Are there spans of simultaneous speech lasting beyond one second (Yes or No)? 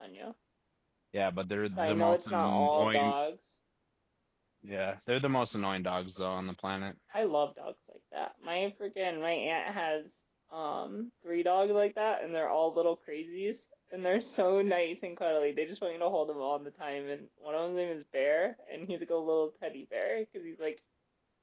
Yes